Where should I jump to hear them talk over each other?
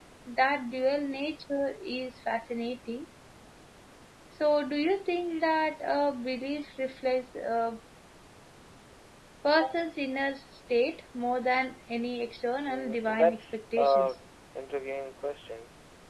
12.6 s

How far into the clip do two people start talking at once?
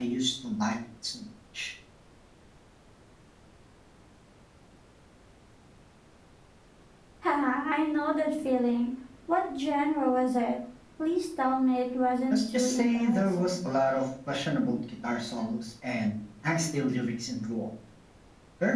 12.3 s

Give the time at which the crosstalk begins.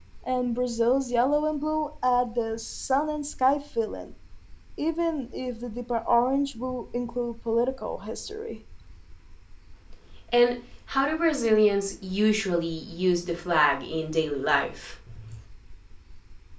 none

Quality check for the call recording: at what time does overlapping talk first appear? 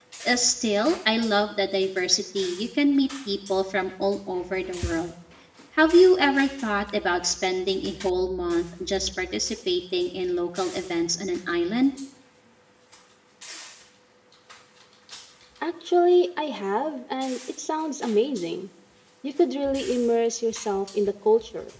none

